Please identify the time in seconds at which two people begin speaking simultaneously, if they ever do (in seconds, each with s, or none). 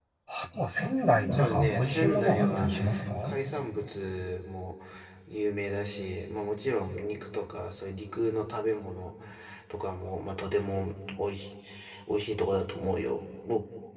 1.3 s